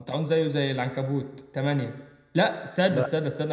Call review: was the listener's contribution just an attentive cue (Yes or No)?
Yes